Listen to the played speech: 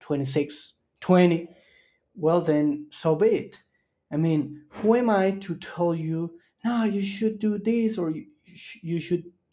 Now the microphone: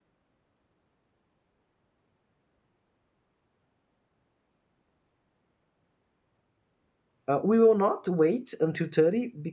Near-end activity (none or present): present